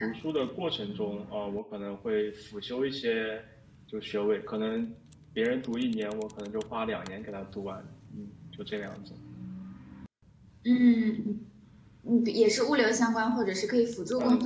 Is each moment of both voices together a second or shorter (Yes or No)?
Yes